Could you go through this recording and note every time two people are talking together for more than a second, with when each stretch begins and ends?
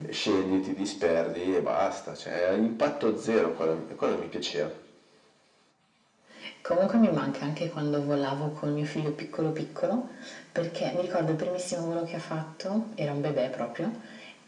none

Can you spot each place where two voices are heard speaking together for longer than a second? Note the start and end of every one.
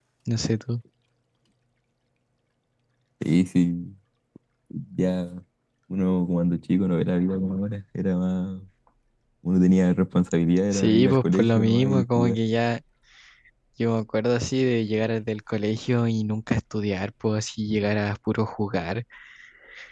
10.7-12.4

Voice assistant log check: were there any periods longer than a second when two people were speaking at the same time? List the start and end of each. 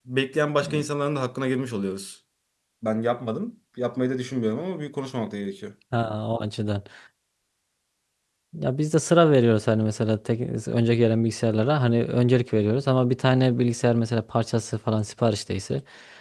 none

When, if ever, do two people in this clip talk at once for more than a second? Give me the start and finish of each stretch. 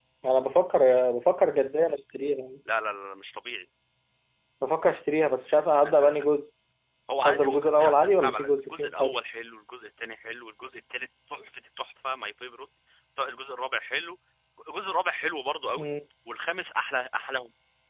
7.3-9.2

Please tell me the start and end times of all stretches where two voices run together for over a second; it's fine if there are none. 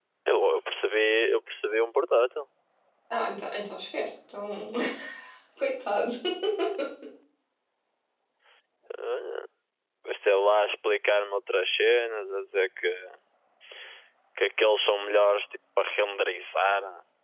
none

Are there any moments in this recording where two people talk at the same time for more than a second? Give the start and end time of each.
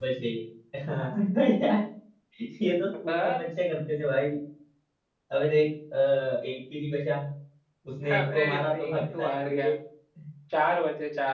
8.1-9.7

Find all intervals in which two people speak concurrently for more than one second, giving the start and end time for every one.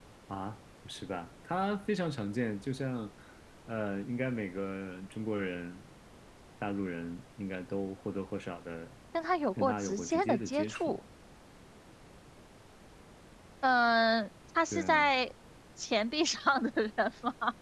9.6-10.9

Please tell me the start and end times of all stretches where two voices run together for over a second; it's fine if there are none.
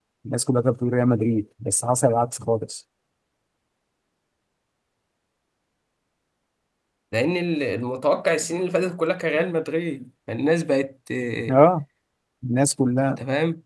none

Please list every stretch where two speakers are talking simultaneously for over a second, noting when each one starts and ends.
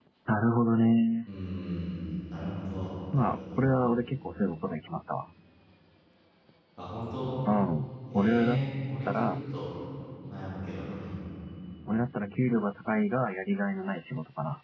none

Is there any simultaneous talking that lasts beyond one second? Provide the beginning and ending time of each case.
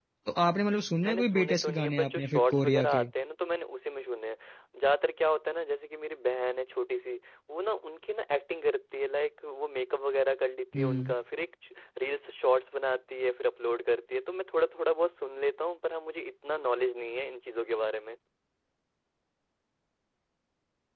1.0-3.1

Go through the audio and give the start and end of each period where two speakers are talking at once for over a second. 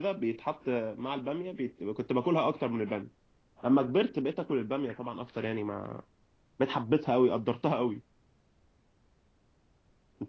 none

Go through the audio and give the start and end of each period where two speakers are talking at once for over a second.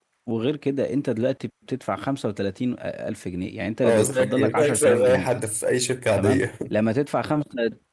3.9-5.3

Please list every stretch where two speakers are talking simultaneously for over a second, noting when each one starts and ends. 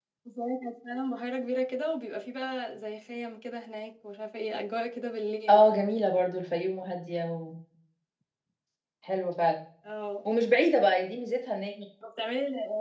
none

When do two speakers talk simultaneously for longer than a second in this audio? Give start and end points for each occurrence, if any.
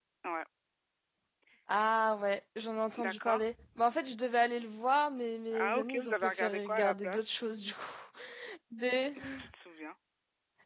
5.5-7.2

